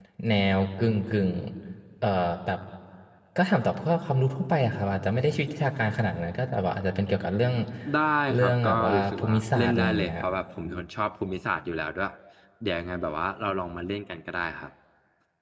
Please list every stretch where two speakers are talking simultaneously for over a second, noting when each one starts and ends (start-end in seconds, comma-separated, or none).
8.3-10.2